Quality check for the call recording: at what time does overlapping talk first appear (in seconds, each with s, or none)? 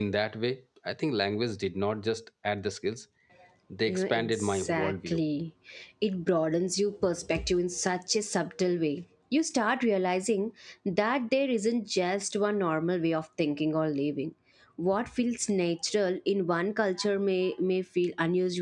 3.9 s